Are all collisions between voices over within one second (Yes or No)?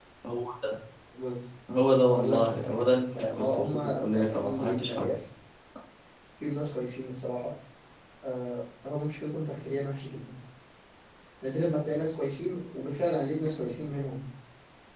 No